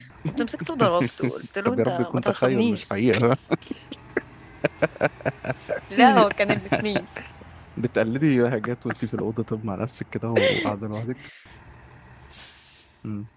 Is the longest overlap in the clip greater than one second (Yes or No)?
Yes